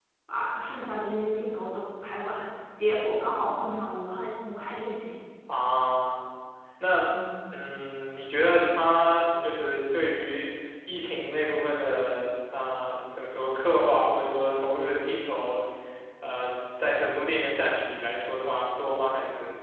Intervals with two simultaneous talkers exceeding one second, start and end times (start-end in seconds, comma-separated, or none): none